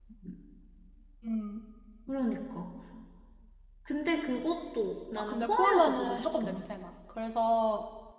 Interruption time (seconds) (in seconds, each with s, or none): 5.2 s